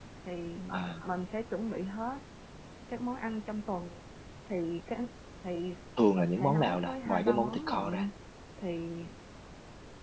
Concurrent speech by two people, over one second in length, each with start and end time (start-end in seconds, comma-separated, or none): 6.2-8.1